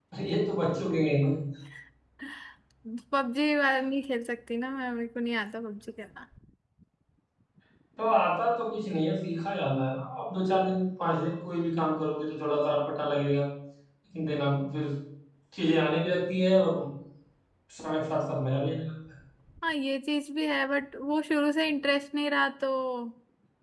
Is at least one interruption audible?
No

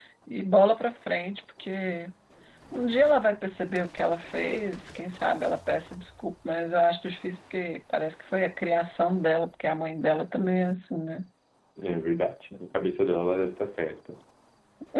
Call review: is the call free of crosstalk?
Yes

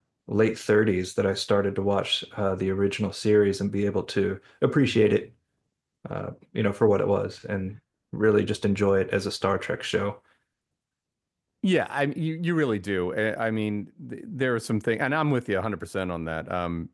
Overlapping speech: No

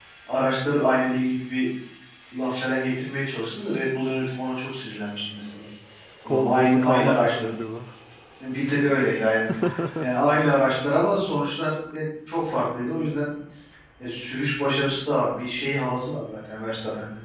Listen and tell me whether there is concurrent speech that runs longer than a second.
Yes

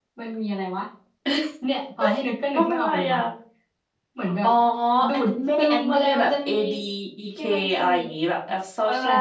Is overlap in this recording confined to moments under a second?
No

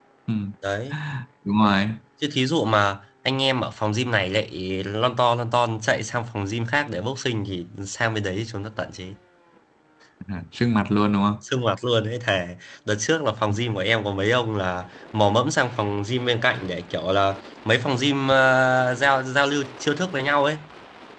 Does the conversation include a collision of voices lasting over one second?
No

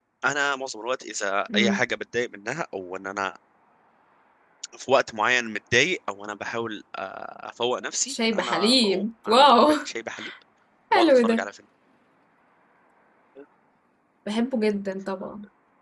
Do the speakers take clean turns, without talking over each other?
No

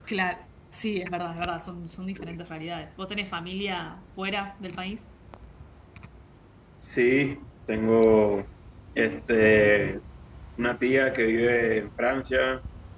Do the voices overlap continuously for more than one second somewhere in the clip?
No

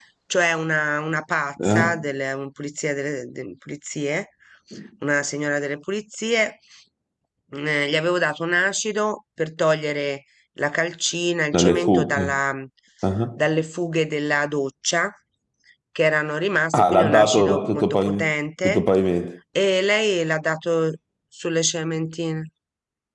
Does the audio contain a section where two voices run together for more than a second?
Yes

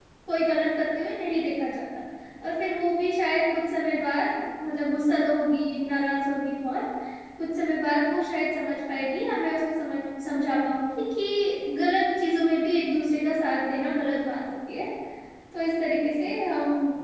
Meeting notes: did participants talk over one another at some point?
No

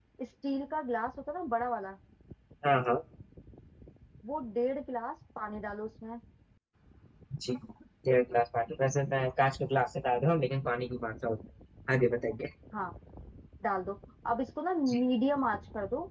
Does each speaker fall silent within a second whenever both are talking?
Yes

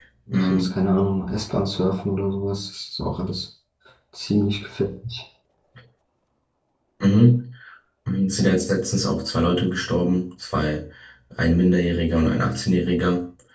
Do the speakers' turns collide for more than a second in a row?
No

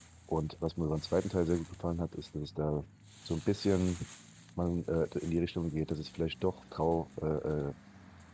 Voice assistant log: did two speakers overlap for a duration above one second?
No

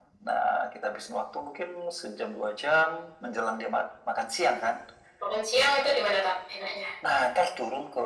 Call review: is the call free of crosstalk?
Yes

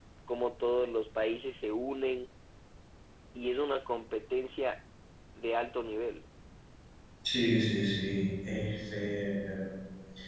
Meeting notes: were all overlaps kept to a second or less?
Yes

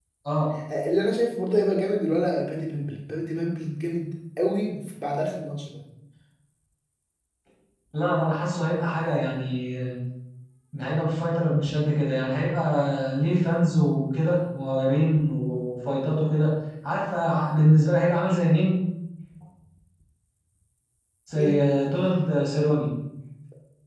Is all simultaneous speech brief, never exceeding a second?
Yes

